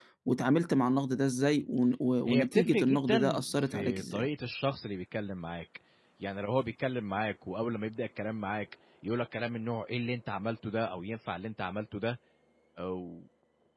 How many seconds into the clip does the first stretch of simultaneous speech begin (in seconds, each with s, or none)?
2.3 s